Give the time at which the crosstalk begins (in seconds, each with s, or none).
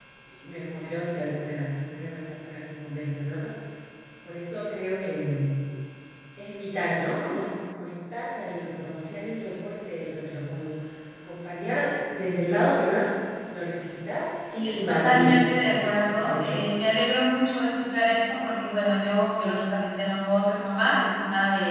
14.6 s